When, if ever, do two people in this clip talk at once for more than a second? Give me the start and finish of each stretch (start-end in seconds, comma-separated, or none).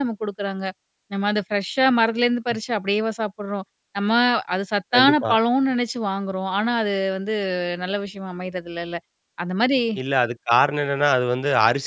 none